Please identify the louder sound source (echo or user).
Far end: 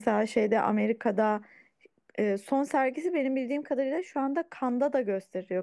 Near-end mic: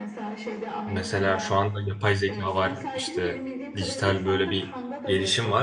user